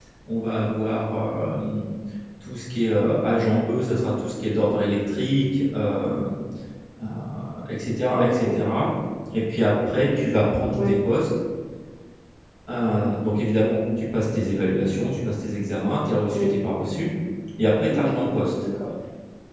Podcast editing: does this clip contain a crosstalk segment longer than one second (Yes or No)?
No